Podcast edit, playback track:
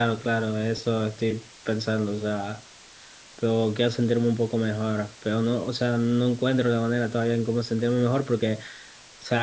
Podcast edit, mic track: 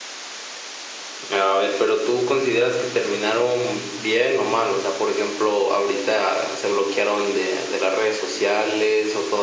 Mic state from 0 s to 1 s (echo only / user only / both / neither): neither